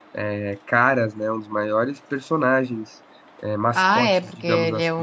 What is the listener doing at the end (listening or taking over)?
taking over